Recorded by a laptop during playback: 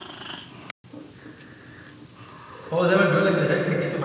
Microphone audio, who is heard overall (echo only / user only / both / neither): user only